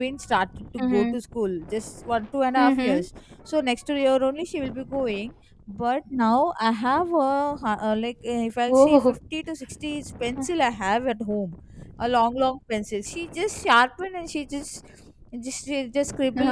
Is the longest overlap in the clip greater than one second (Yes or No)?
No